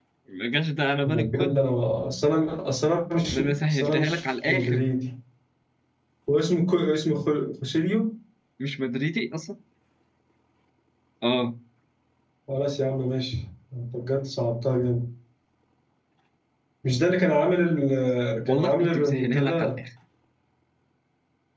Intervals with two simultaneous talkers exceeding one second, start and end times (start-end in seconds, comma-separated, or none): 3.3-4.8, 18.5-19.8